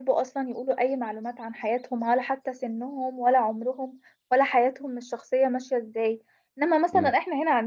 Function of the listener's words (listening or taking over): listening